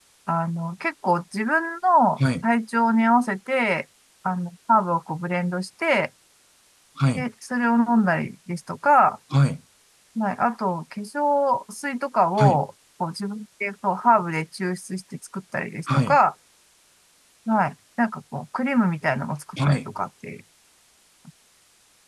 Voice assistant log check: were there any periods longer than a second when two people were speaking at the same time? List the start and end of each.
none

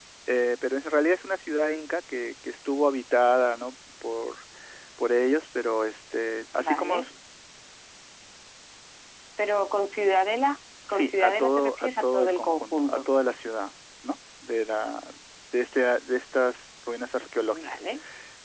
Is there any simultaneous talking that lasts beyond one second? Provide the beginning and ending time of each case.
10.9-13.0

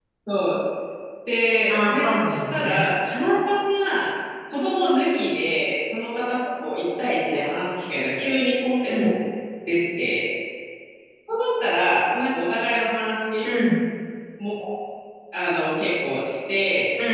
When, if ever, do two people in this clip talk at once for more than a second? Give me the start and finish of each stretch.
1.7-2.9

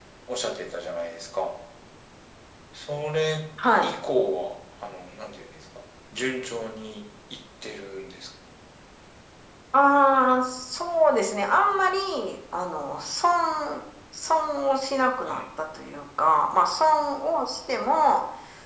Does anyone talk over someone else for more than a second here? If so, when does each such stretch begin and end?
none

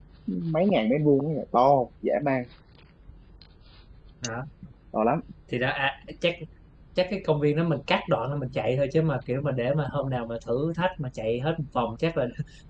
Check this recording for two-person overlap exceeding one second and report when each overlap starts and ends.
none

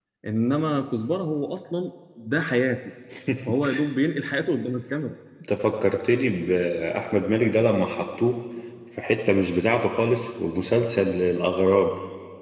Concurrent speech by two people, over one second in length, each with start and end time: none

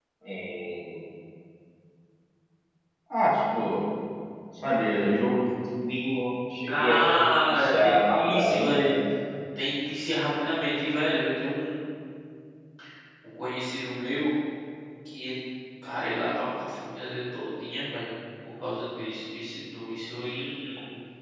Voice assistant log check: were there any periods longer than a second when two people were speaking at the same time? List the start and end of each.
7.5-8.9

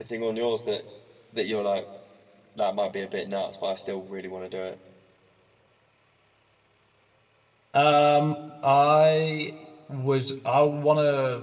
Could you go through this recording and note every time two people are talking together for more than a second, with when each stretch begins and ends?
none

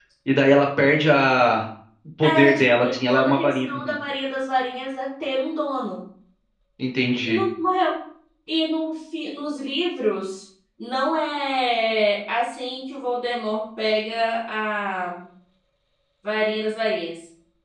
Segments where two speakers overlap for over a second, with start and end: 2.2-3.9

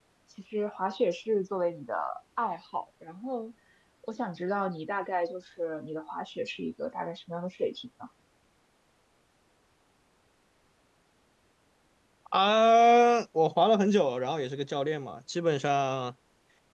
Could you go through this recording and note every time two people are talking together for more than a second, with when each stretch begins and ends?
none

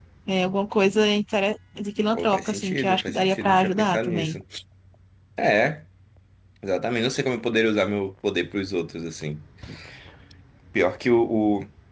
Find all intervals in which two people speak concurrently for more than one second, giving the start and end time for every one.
2.1-4.4

